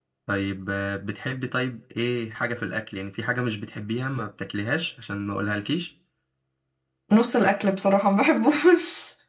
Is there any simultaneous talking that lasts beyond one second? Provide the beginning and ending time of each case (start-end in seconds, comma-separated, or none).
none